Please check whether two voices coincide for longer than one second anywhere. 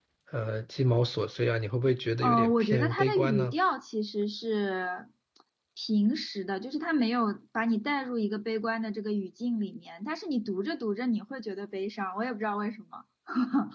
Yes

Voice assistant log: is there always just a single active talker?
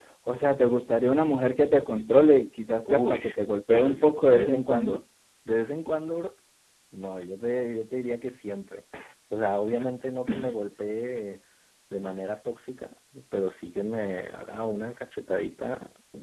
No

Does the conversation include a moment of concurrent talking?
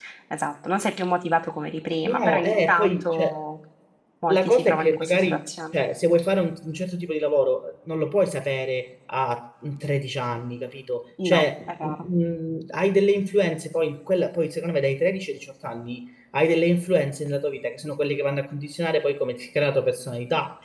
Yes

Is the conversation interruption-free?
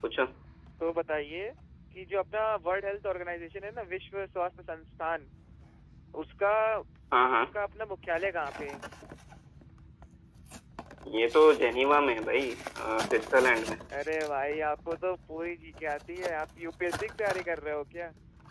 Yes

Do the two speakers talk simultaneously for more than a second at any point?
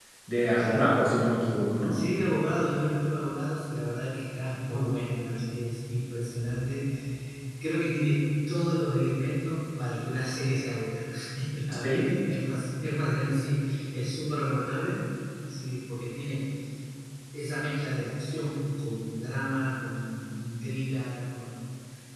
No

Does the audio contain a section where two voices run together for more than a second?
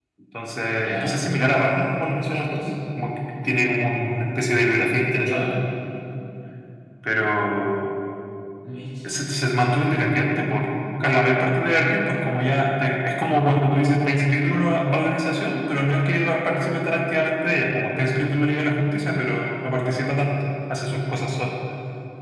No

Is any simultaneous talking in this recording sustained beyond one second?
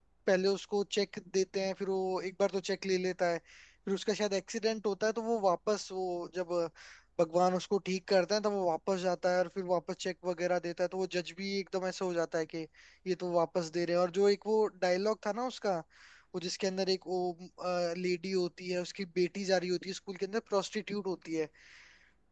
No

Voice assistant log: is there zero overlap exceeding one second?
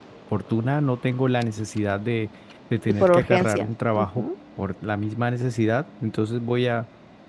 No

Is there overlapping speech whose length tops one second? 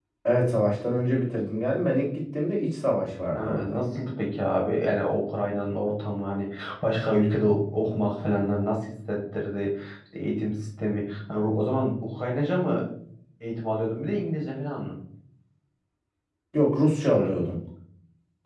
No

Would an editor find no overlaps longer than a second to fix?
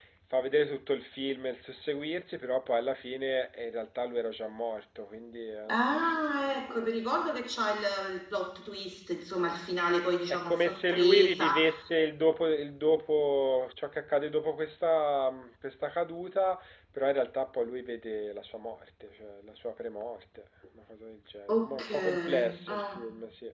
No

